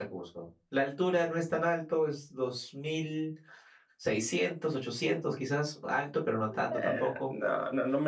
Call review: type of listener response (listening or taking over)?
taking over